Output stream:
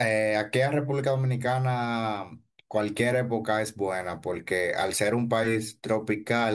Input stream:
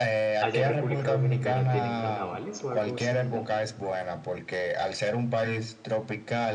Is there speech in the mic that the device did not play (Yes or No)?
Yes